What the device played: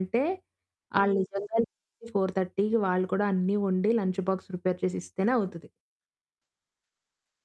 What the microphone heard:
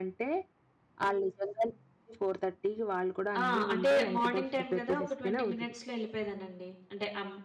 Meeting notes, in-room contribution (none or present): present